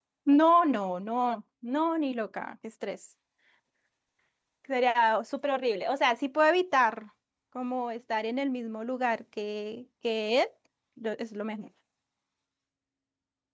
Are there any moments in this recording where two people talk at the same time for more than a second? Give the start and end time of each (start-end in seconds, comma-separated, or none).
none